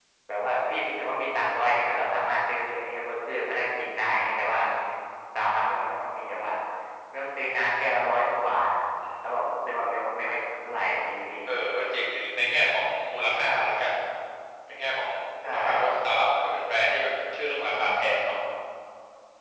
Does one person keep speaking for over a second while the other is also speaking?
No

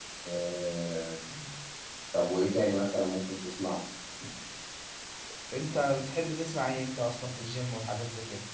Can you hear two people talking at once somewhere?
No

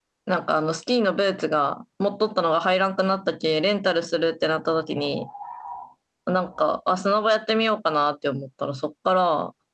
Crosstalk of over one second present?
No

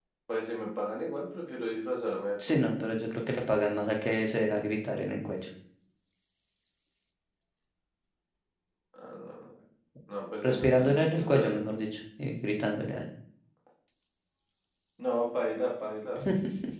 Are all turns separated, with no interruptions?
No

